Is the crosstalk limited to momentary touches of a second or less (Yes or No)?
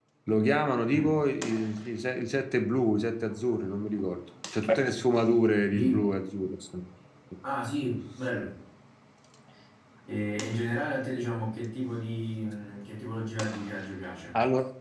Yes